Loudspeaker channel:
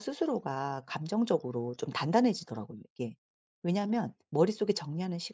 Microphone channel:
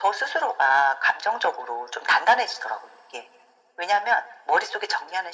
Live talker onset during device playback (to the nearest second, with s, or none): none